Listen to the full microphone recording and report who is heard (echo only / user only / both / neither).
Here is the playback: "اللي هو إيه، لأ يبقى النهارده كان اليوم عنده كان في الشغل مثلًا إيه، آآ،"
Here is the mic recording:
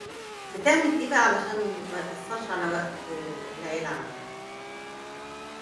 user only